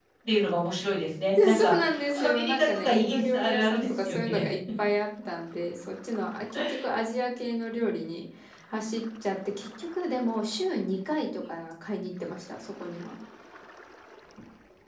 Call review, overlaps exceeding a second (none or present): present